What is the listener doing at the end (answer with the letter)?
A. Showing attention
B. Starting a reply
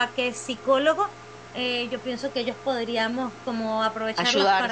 A